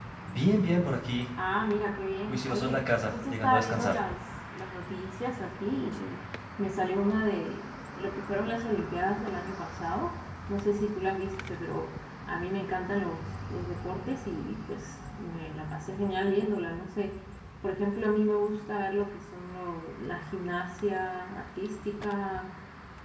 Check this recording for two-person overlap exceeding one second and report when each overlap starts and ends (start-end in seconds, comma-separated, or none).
2.3-4.0